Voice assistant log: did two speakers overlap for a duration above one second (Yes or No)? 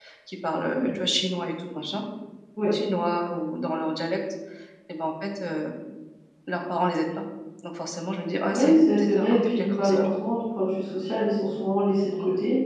Yes